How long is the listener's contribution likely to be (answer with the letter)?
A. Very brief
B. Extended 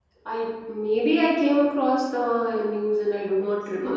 B